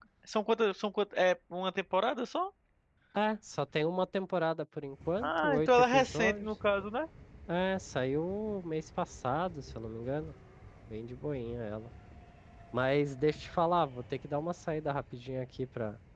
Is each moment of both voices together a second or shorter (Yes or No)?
No